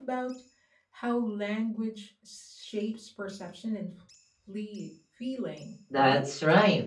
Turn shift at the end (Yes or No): Yes